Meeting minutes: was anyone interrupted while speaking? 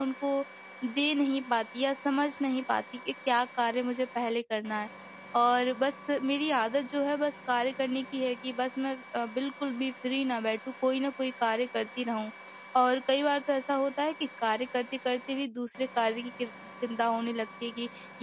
No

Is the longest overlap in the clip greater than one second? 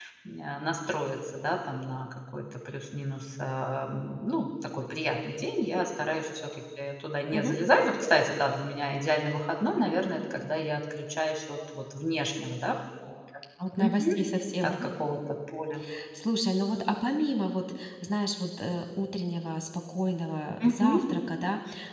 No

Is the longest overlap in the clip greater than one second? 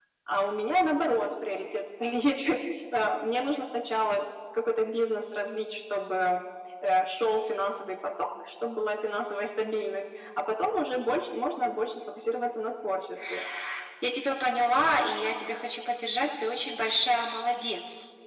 No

